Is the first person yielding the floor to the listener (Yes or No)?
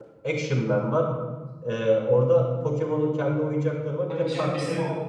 Yes